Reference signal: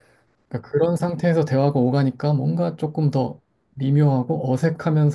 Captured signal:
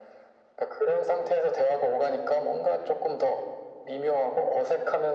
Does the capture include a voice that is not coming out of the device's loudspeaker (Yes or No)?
No